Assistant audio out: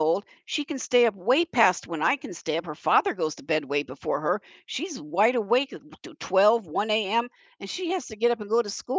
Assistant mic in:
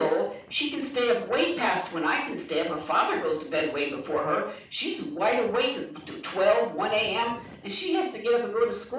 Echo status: present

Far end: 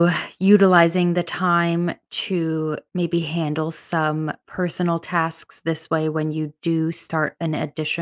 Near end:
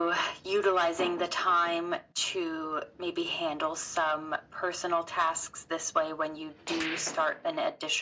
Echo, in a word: present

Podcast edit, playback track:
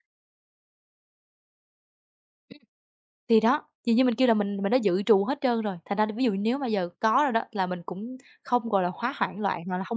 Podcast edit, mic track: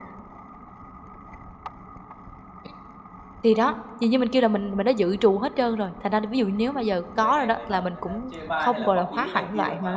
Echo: present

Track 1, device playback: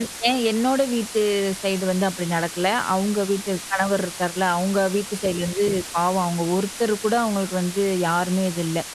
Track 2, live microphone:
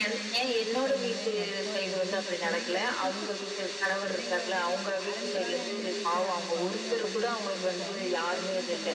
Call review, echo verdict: present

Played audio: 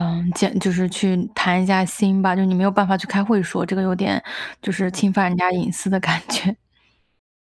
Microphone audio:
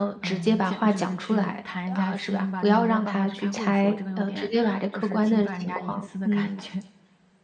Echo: present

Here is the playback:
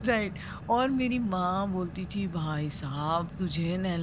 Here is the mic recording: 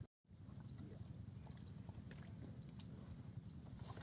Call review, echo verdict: none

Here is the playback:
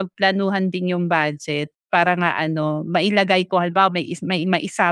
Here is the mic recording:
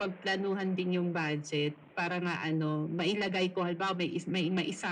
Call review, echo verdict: present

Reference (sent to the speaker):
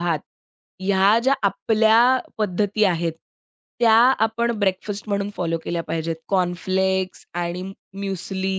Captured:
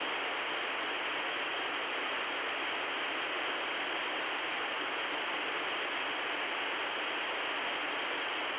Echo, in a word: none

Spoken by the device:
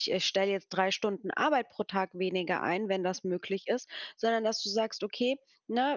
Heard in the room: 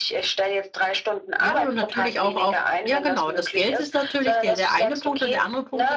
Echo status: present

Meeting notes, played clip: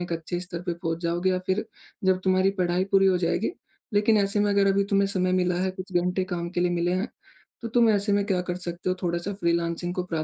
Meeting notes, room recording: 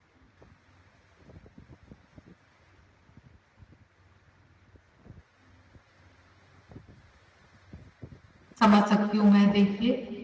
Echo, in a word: none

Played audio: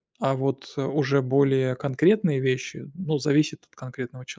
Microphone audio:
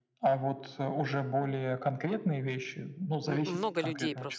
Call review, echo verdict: present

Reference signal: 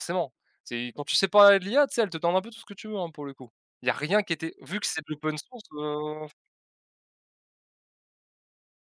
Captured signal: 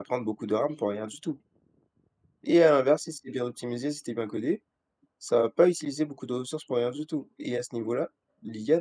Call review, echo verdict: none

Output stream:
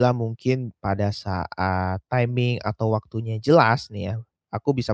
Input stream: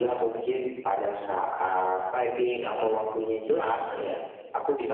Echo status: present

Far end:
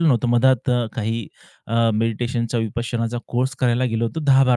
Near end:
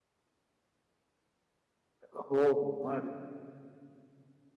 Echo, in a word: none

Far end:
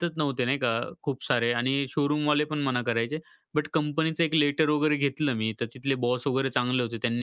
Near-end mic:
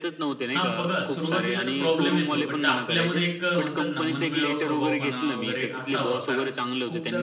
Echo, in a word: present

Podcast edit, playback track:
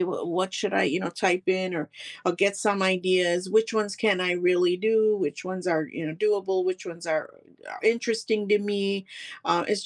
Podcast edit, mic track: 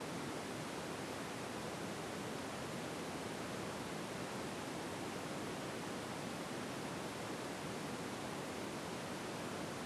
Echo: none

